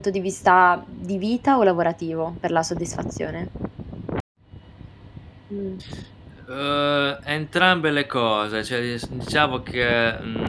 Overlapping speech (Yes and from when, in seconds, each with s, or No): No